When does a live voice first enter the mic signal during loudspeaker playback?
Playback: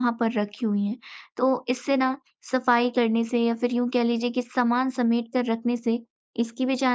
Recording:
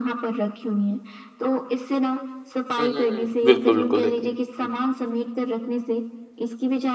3 s

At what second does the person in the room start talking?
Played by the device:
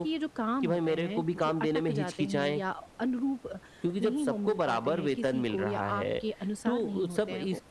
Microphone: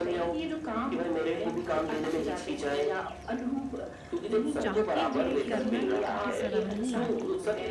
5 s

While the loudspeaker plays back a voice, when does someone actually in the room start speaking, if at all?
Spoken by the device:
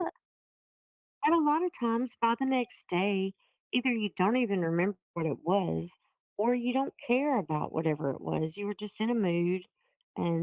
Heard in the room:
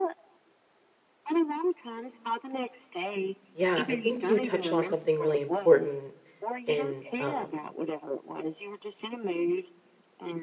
4 s

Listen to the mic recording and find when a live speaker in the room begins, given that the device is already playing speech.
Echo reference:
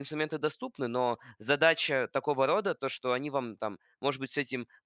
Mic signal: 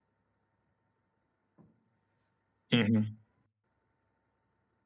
3 s

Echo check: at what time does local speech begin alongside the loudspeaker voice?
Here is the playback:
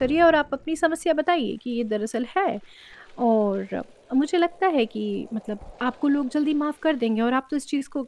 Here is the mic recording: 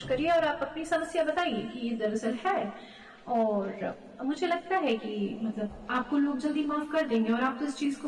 none

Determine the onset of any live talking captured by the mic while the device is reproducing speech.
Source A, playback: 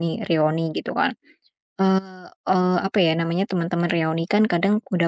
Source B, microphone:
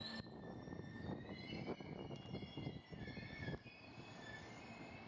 none

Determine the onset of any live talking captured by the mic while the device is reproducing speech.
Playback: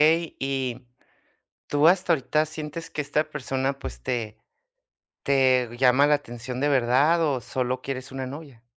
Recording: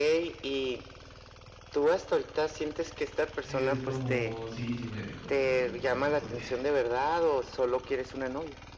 3 s

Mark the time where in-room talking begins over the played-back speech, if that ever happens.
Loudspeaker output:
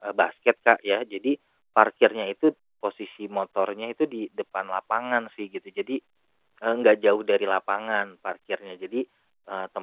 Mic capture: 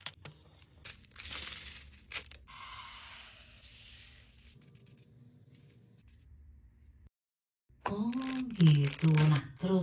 8 s

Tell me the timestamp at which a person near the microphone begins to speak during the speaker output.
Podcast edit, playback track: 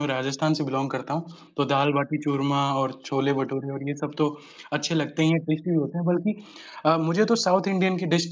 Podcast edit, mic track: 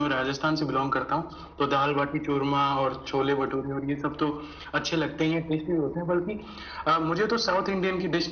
none

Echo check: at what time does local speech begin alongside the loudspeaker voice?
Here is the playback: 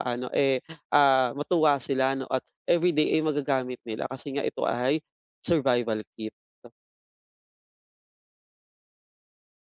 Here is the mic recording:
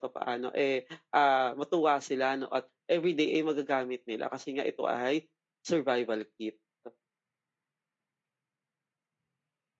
none

